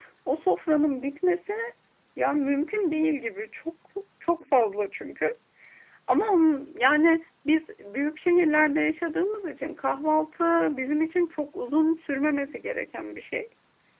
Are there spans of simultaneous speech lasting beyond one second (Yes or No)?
No